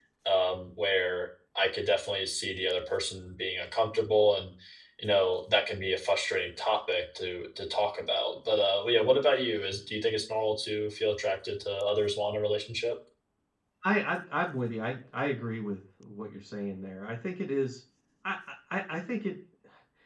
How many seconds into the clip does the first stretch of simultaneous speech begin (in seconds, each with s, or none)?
none